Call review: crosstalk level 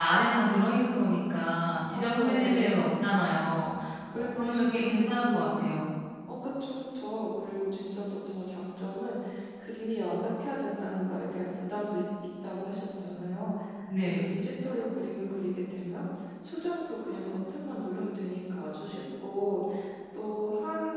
present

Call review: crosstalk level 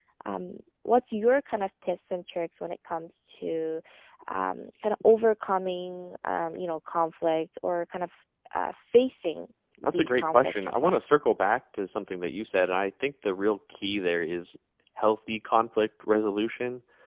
present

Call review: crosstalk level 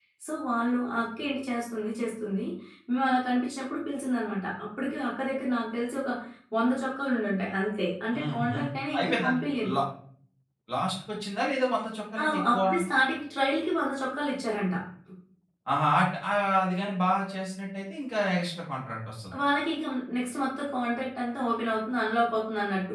present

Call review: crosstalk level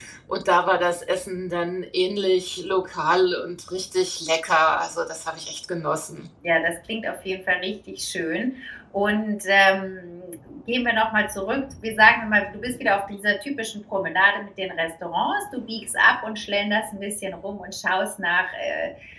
none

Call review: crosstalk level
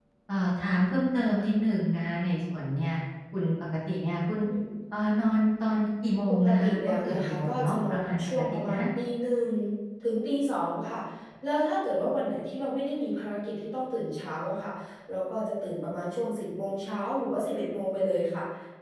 present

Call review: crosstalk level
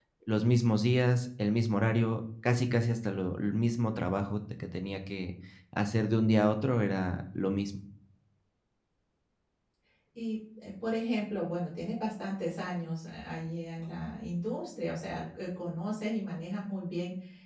none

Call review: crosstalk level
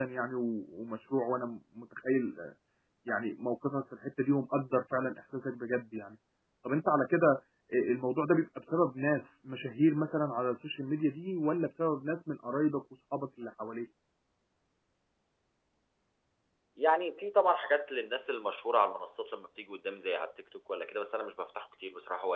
none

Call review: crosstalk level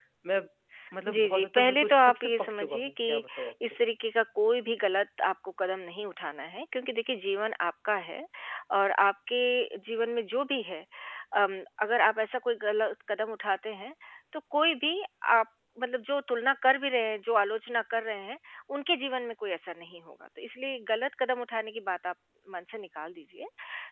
present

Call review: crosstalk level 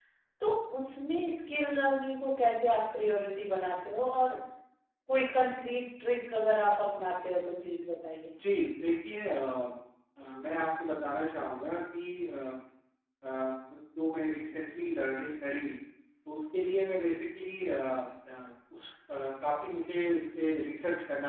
none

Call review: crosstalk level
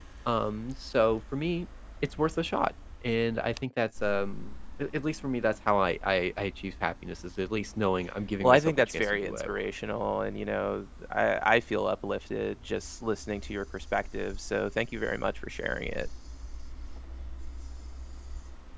present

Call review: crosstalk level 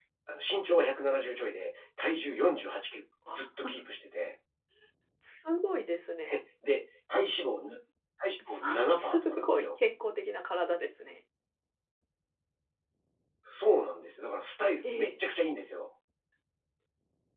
present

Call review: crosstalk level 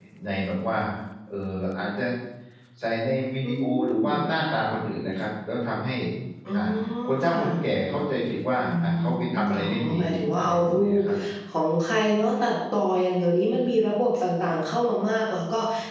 present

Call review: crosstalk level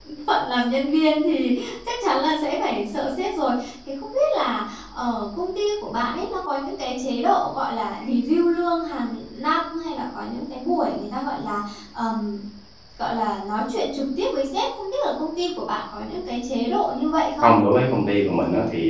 none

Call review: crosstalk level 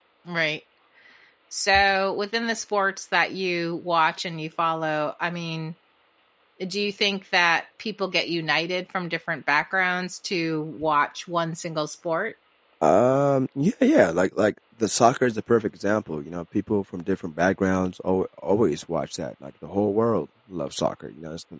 none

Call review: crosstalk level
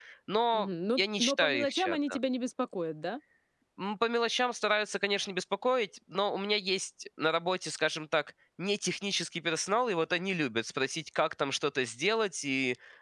present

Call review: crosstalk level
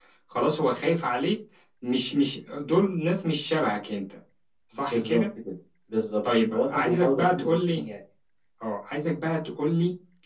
present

